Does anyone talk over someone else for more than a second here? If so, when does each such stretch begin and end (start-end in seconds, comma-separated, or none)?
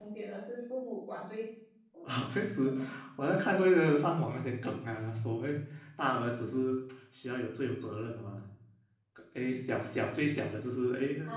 none